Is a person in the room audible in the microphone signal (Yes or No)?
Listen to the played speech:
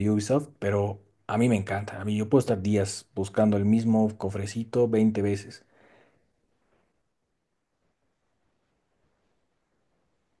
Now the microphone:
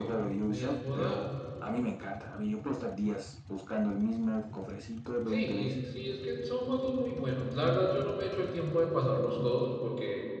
Yes